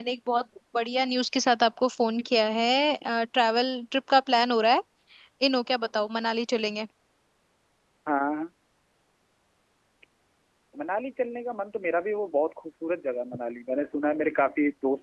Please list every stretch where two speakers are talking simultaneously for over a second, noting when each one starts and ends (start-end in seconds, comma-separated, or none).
none